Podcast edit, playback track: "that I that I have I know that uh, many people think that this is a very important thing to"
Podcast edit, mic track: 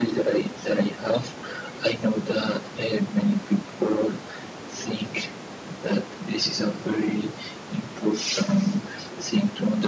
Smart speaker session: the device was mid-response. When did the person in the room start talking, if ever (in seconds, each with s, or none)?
none